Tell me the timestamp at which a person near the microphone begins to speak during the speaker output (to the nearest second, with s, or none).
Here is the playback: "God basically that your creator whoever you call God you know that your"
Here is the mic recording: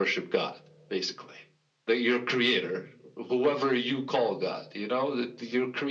none